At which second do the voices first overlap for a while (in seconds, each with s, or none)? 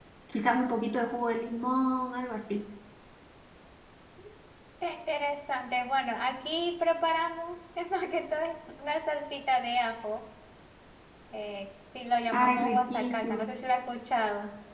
12.3 s